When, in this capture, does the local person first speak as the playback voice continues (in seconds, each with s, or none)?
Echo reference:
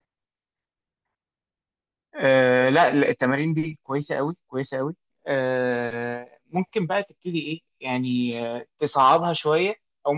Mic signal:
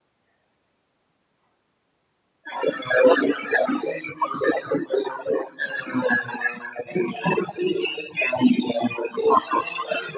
none